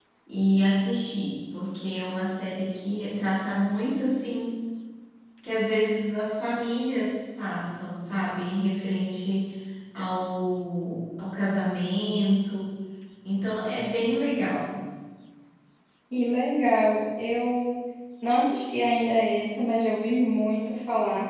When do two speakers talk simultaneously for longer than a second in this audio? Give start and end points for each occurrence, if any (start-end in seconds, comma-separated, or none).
none